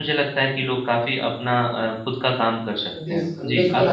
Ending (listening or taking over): taking over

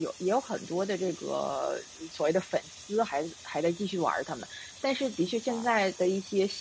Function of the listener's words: listening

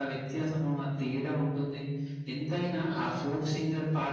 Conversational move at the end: listening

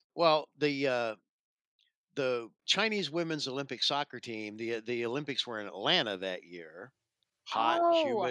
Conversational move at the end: taking over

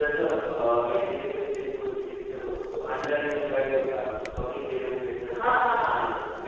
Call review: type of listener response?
taking over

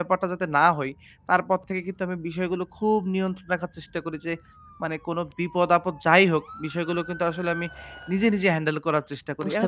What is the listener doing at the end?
listening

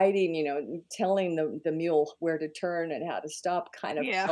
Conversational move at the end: listening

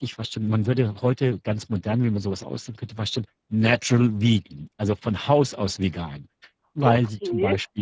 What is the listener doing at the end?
listening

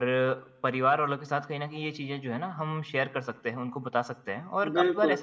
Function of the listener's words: listening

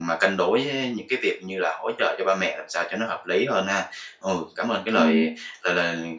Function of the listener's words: listening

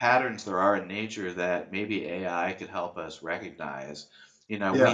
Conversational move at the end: listening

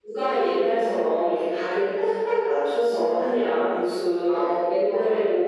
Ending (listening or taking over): listening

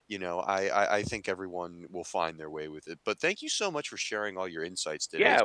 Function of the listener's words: taking over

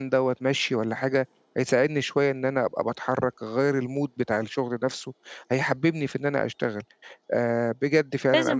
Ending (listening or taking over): taking over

